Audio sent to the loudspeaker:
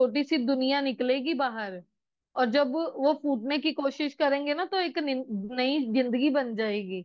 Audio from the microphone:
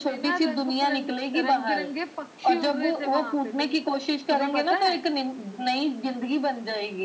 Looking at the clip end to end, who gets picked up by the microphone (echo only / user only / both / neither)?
both